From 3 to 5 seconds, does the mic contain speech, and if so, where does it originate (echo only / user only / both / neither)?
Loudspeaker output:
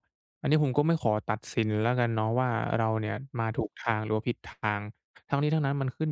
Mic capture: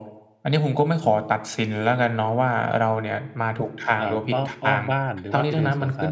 both